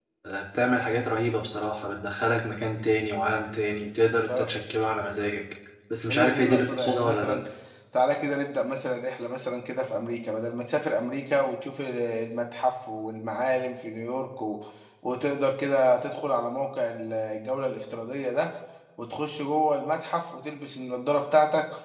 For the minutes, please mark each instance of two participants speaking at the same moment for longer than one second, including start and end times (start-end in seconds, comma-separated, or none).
6.1-7.4